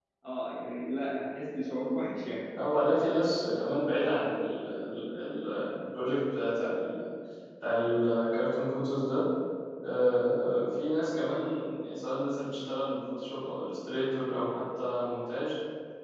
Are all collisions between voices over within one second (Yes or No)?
Yes